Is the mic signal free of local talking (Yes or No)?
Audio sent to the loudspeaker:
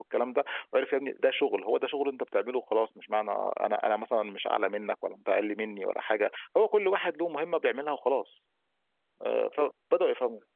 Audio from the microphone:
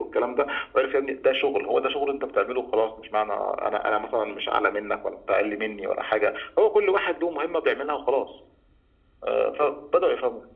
Yes